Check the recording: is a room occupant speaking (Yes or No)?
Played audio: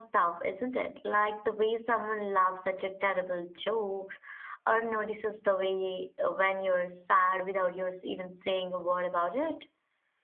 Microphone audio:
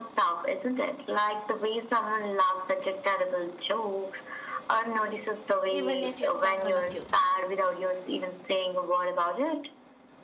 Yes